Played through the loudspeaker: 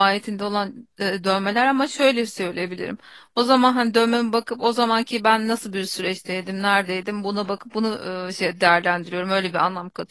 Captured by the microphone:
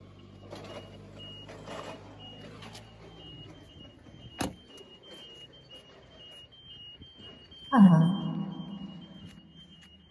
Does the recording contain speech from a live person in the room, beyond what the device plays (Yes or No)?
Yes